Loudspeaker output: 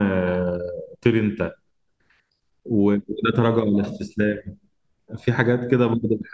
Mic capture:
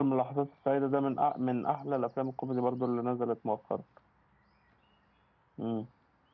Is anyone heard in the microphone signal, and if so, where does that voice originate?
user only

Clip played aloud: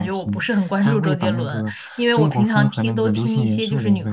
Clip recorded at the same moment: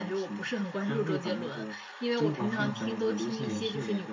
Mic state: both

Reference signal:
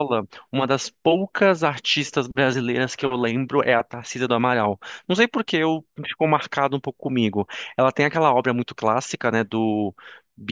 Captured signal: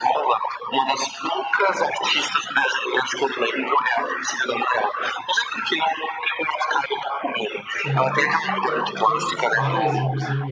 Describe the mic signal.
both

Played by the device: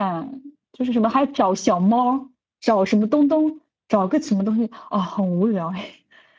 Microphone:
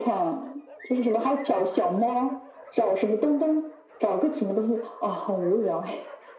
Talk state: echo only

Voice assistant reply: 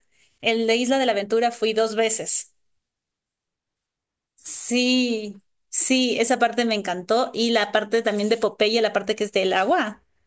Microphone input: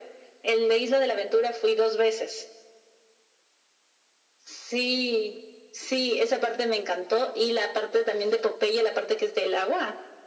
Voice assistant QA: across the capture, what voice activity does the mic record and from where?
echo only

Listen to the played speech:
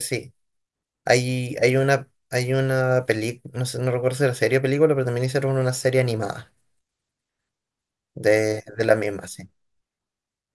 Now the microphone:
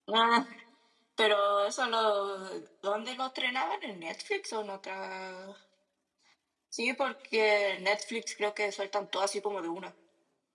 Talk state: user only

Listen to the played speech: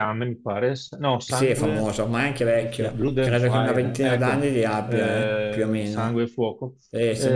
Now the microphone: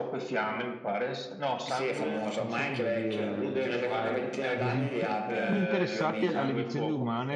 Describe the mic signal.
both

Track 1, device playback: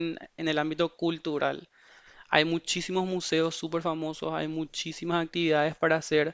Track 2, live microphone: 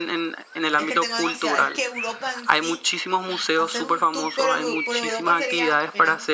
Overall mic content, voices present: both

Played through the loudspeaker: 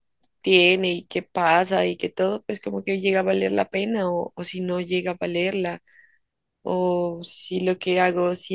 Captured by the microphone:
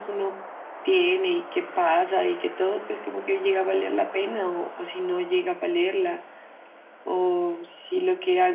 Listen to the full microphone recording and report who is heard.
echo only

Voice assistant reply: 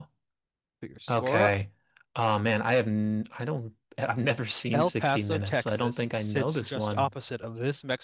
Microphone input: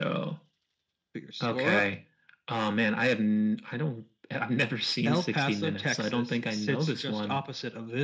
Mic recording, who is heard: echo only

